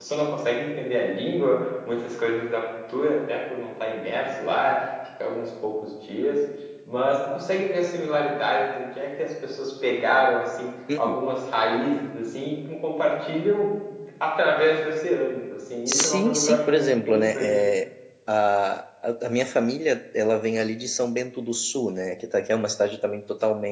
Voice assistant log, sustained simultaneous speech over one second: present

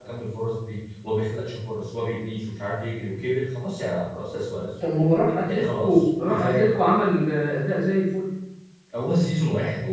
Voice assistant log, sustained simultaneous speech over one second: present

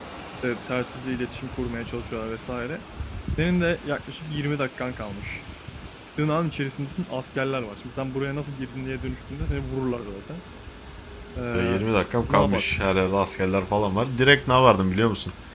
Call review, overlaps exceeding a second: none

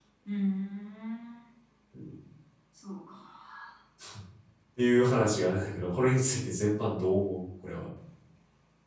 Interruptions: none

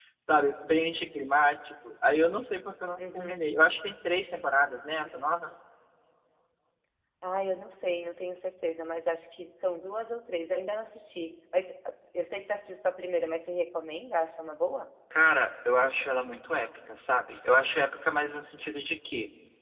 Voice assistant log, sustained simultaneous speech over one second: none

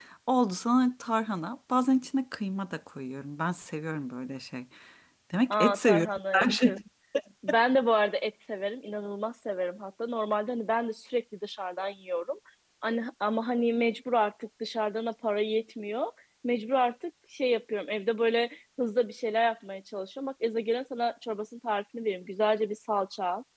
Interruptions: present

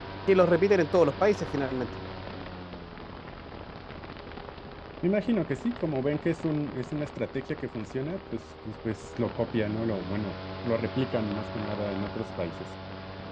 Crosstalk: none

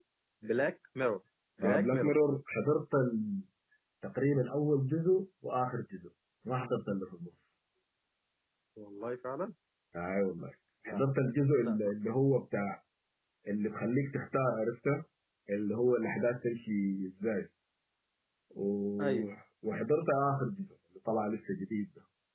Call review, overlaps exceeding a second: none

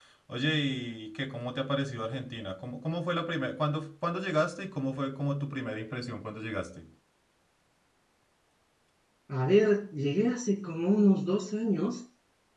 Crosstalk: none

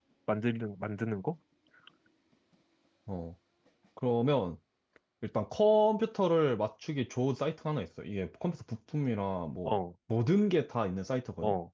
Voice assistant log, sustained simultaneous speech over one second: none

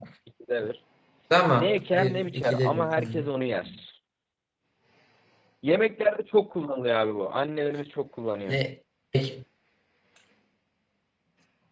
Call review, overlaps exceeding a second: present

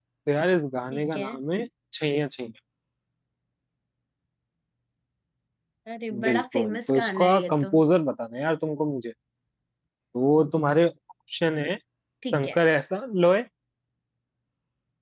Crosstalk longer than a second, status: present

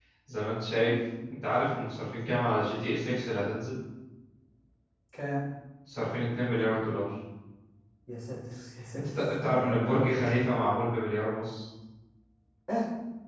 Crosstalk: present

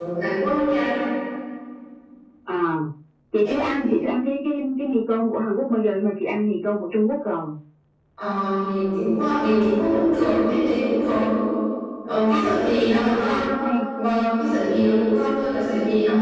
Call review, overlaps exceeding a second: present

